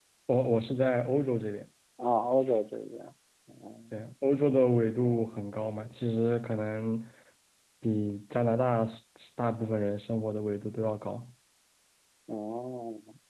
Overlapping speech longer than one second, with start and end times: none

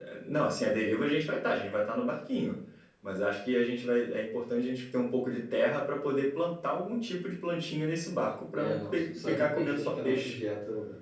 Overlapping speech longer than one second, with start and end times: 8.5-10.3

